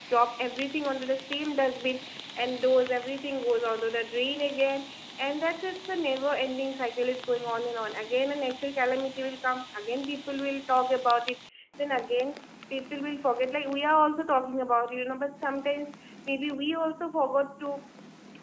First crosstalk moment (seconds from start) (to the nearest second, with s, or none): none